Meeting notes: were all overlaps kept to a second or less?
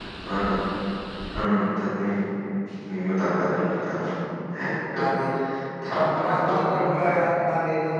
No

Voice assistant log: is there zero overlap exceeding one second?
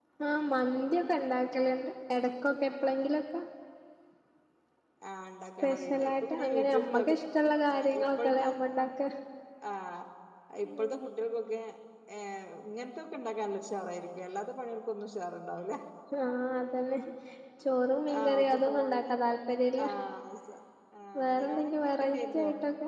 No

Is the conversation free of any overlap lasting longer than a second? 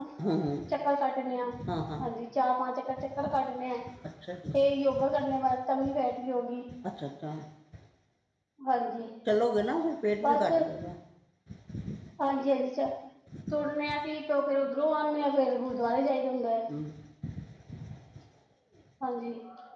Yes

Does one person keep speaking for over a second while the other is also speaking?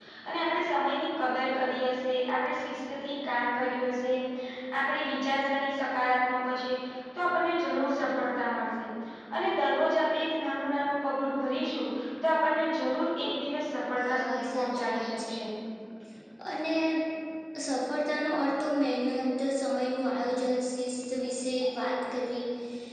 Yes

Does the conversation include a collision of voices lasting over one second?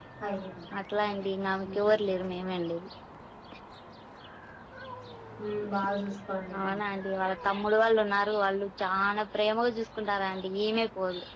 No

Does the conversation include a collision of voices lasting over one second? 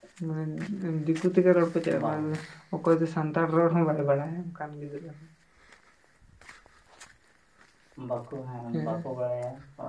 No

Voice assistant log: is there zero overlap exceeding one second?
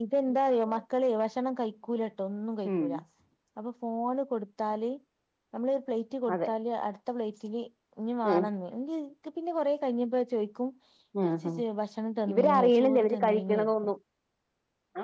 No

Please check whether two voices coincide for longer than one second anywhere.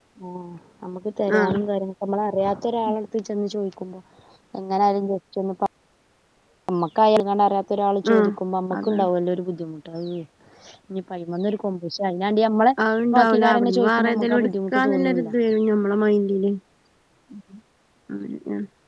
Yes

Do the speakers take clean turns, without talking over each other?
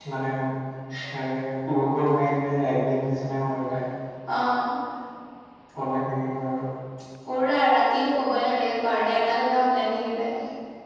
Yes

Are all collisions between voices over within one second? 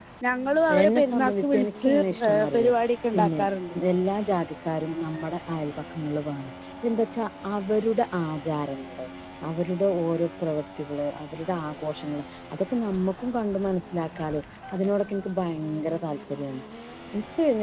No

